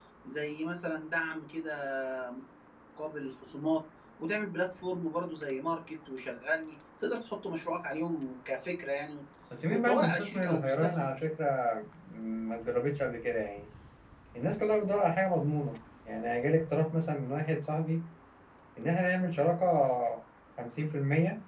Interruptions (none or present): present